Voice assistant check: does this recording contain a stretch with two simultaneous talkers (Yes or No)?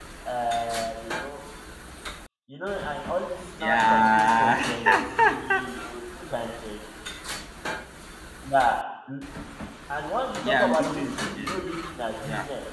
Yes